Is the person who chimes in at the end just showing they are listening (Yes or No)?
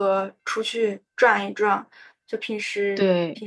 Yes